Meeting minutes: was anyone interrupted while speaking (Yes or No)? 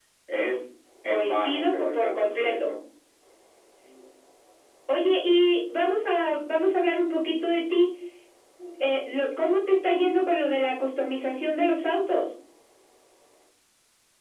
Yes